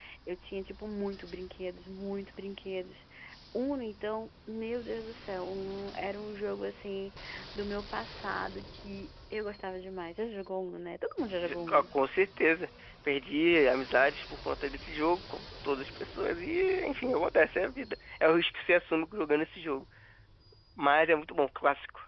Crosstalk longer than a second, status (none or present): none